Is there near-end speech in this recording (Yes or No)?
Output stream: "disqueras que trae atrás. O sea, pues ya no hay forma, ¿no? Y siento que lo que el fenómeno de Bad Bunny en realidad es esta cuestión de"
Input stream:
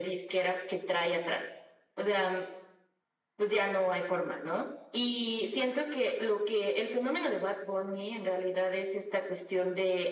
No